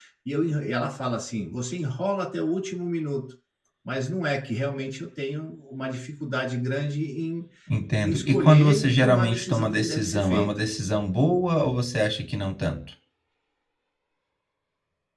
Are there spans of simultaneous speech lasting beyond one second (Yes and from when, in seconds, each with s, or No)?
Yes, from 8.0 s